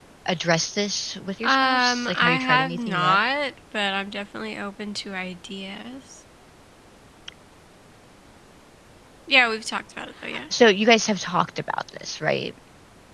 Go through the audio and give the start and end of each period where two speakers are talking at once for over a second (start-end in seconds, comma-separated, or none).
1.4-3.2